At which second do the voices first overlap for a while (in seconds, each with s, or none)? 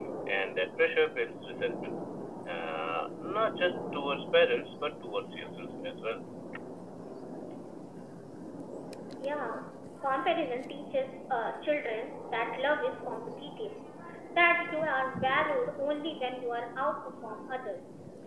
none